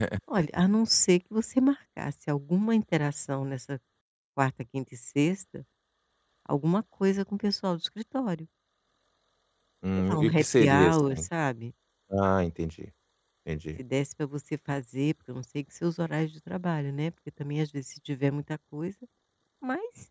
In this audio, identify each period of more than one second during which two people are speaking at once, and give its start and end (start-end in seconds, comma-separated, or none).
10.1-11.3